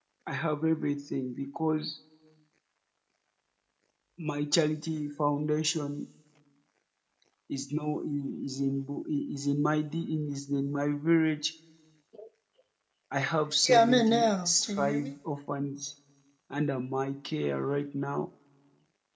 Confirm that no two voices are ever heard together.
No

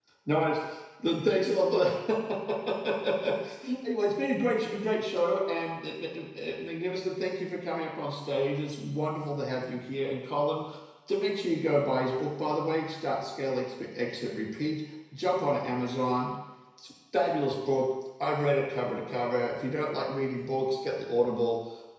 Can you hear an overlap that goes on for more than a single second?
No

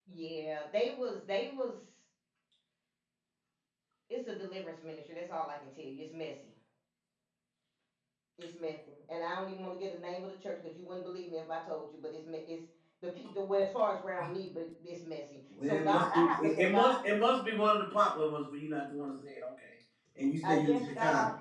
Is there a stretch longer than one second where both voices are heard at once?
Yes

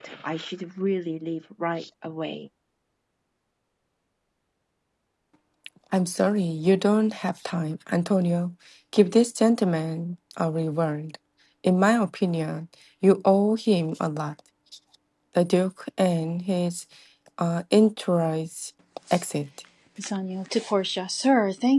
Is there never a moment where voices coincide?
Yes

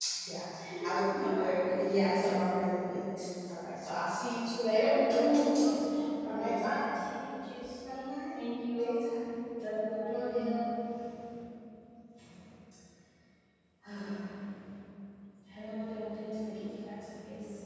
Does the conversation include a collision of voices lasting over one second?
Yes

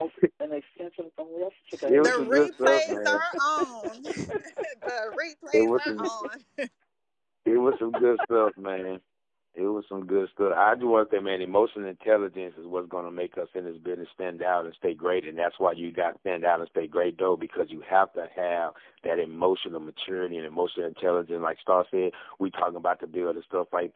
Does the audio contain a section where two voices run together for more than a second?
Yes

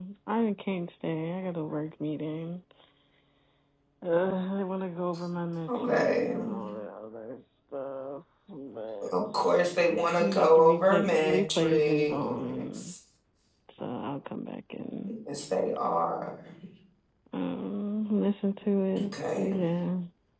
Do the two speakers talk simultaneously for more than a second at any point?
Yes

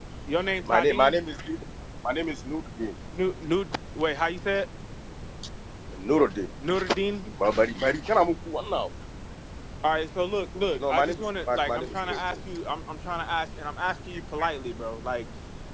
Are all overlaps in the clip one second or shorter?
No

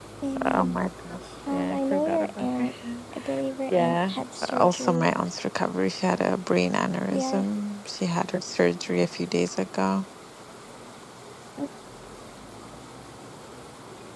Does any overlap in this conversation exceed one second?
Yes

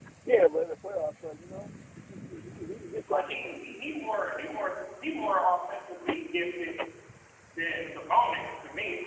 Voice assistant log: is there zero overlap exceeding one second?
Yes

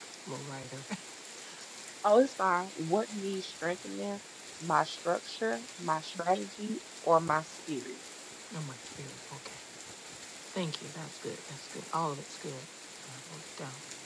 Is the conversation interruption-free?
Yes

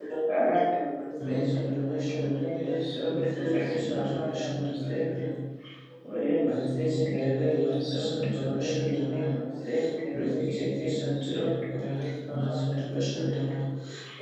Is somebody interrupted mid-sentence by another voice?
Yes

